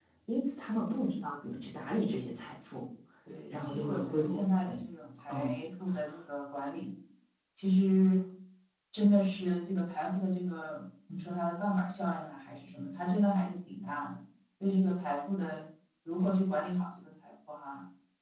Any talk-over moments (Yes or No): Yes